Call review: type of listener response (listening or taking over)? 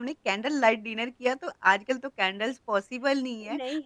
listening